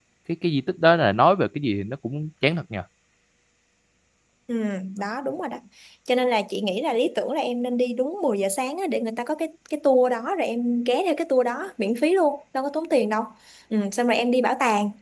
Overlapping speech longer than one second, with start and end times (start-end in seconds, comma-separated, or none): none